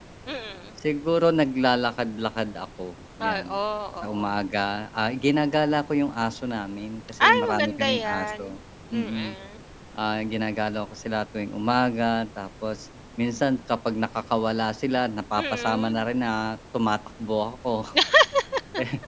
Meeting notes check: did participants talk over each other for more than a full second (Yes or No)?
Yes